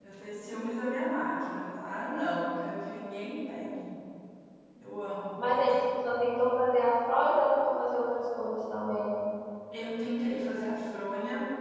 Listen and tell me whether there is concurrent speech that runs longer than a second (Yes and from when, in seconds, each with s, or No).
No